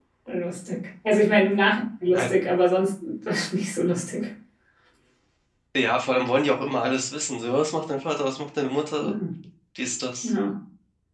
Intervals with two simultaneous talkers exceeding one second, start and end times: none

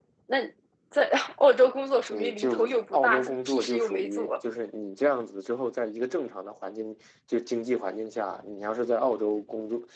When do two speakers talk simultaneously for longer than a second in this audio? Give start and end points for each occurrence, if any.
2.1-4.3

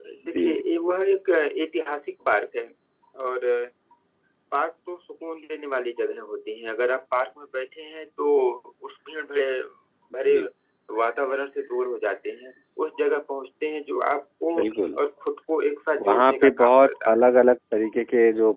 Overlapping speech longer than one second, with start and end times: 16.0-17.2

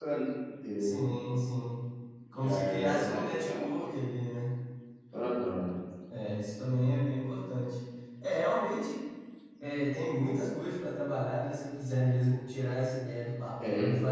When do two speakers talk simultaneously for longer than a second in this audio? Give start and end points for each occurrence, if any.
2.3-3.6

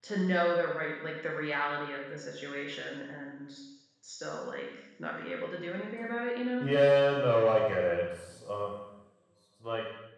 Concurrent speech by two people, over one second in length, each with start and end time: none

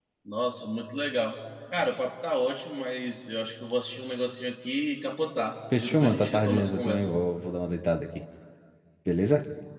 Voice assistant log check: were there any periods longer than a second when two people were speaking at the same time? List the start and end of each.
5.8-7.1

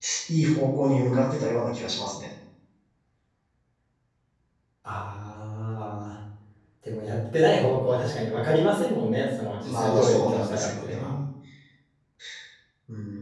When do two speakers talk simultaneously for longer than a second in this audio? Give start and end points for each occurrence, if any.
9.6-11.1

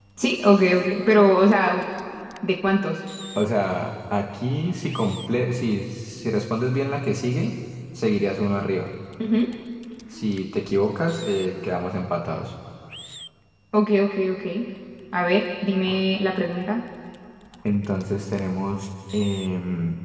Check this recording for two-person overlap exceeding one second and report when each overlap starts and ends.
none

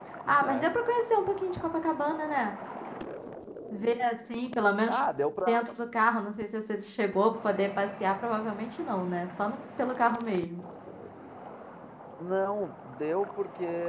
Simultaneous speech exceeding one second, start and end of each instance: none

